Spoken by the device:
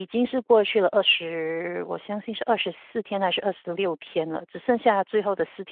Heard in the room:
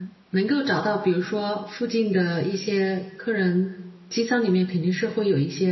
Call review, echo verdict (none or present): none